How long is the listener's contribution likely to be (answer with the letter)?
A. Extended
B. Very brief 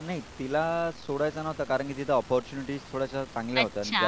A